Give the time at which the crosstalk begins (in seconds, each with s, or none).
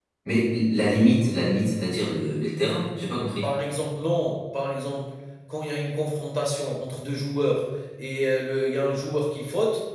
none